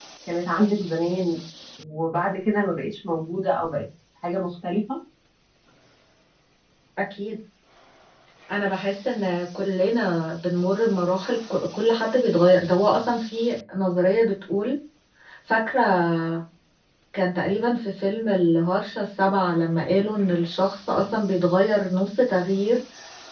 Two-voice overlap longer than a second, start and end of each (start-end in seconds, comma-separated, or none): none